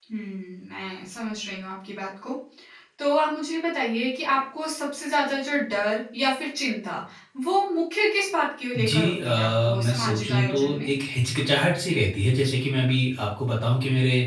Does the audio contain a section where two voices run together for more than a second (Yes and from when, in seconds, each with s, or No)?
Yes, from 8.7 s